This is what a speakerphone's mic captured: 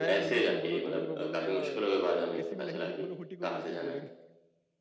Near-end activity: present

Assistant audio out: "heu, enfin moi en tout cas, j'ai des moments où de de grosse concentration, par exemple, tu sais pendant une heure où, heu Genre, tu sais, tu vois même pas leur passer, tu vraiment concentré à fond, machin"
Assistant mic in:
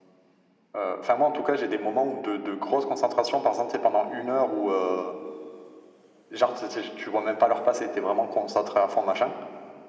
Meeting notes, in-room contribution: none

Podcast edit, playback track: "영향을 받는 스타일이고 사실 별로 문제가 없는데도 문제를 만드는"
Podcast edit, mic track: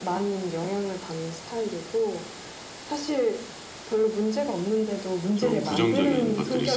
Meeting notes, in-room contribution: present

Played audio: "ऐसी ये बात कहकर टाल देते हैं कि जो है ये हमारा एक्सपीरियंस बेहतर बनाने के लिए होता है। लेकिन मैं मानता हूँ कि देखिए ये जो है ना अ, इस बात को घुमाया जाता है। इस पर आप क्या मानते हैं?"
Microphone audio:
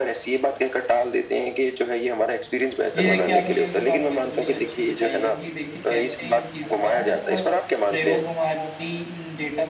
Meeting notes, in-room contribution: present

